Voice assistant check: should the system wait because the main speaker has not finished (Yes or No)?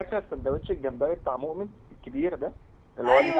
No